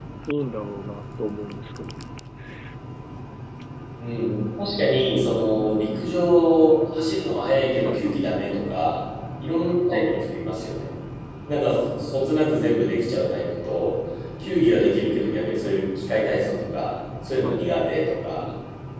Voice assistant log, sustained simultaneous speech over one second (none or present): none